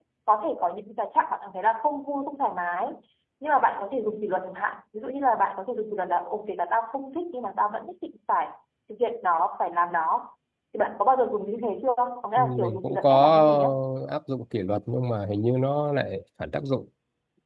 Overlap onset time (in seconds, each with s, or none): 12.4 s